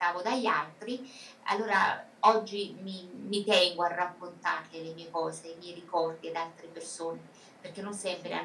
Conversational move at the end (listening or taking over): listening